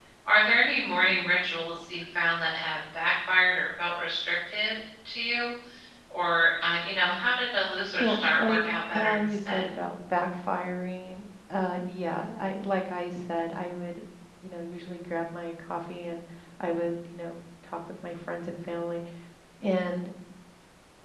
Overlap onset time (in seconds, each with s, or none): 8.0 s